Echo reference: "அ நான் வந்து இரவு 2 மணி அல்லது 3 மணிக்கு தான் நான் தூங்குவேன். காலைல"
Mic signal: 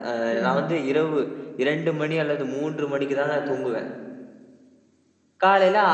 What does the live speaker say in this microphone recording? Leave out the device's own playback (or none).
சரி தான்.